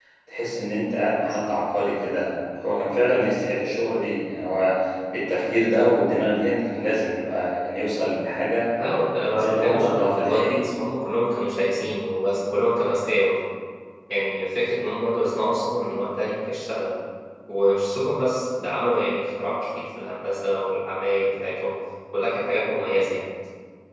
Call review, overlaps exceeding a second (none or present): present